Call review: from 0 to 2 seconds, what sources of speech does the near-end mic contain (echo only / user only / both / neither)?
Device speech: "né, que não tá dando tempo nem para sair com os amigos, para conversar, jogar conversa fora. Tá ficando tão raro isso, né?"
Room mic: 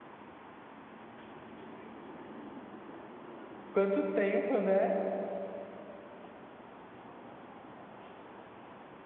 neither